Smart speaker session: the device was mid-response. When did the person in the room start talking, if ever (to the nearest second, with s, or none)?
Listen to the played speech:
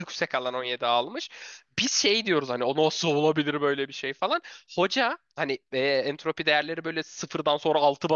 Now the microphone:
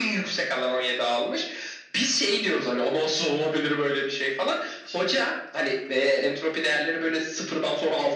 none